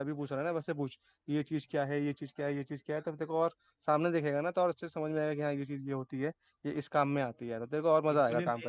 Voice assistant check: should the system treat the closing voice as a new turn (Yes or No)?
Yes